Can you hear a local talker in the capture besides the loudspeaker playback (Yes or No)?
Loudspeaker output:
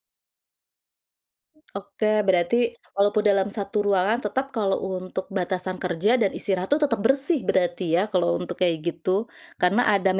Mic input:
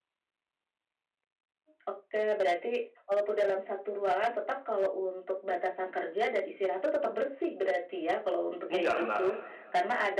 Yes